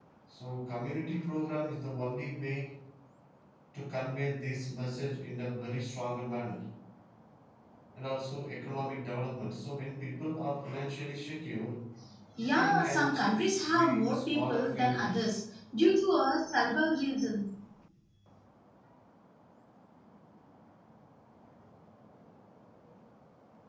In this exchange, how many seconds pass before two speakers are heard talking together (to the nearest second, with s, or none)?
12 s